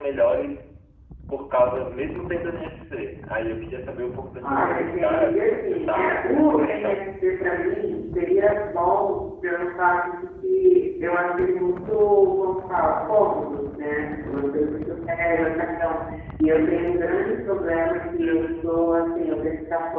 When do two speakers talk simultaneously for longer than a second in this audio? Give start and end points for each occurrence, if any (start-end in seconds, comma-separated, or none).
4.4-7.0